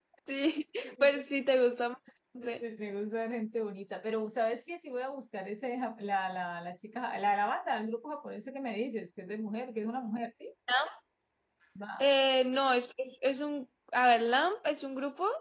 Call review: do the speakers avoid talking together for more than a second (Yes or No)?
Yes